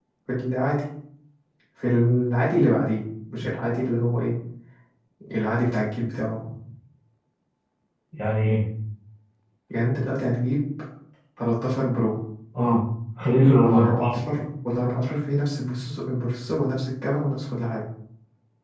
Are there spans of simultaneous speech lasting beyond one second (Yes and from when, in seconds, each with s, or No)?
No